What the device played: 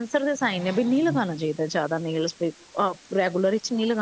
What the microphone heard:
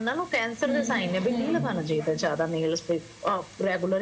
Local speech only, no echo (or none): ਹੂੰ ਹੂੰ